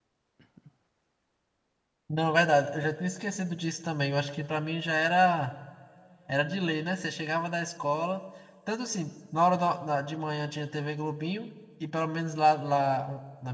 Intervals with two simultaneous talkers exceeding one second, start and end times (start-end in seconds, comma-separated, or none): none